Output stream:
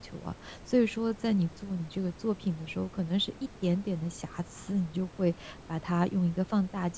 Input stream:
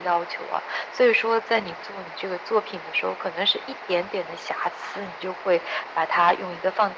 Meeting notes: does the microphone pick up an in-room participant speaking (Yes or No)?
No